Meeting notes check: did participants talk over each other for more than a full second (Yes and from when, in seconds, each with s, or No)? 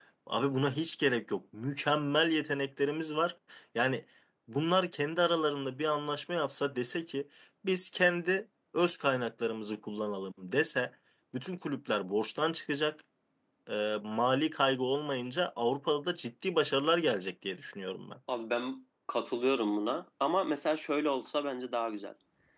No